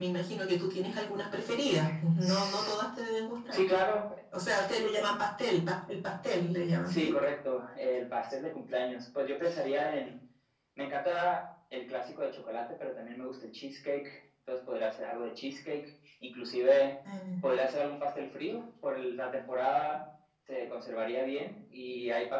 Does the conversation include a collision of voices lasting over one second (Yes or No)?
No